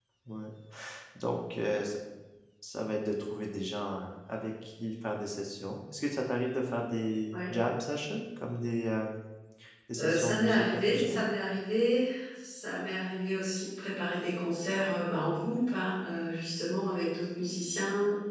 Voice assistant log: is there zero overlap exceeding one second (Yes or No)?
No